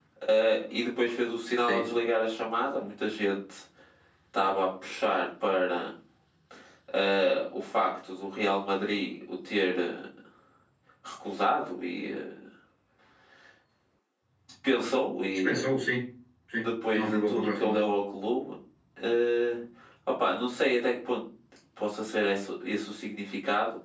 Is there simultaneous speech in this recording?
Yes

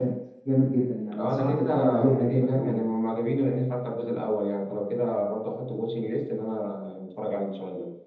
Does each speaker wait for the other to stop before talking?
No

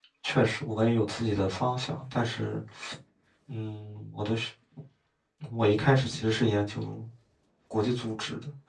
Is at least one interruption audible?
No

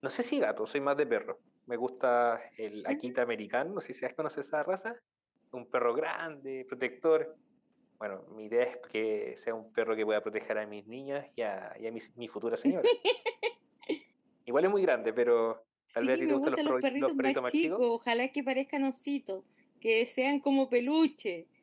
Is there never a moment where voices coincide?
No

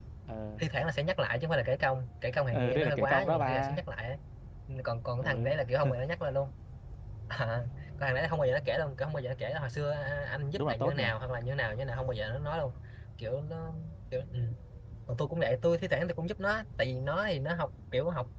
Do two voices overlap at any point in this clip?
Yes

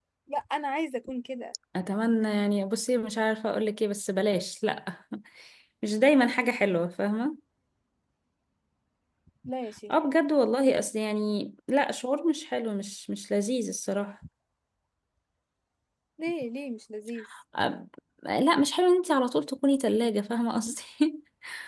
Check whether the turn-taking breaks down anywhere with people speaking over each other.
No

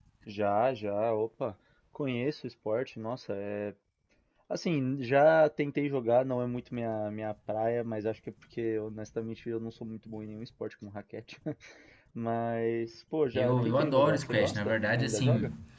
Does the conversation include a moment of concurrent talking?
Yes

